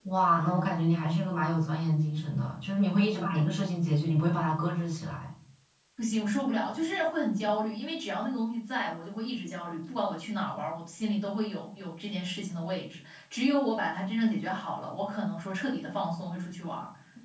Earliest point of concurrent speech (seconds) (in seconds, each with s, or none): none